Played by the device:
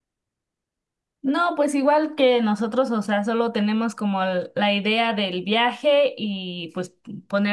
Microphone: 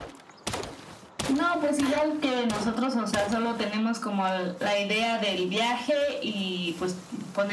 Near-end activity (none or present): none